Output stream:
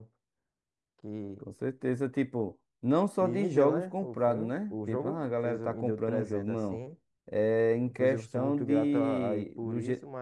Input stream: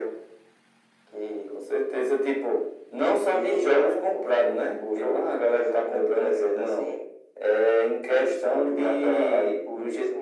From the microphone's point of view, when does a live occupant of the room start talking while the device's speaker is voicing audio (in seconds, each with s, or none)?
none